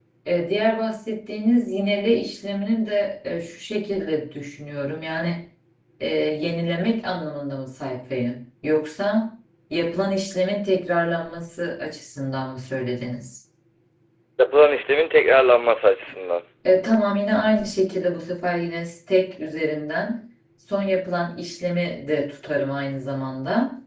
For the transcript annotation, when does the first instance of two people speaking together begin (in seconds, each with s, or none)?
none